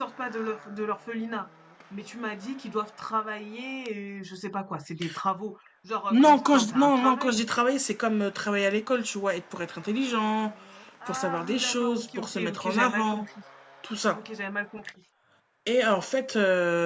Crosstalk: present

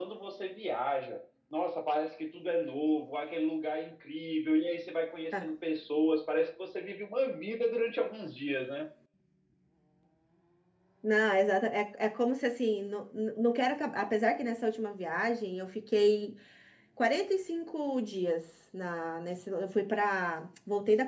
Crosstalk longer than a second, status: none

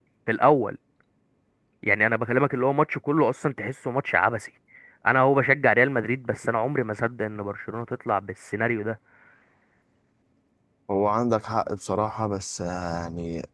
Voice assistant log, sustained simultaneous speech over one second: none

